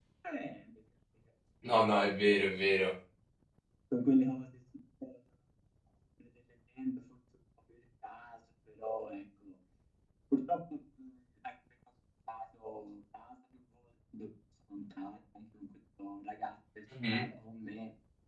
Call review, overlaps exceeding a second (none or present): none